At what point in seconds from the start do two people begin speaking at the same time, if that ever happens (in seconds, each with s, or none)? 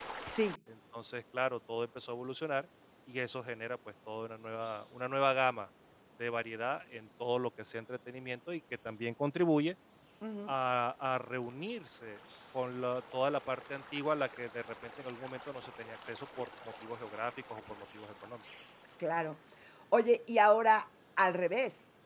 none